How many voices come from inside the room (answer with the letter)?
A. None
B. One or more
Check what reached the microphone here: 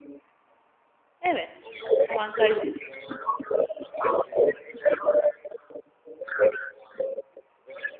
B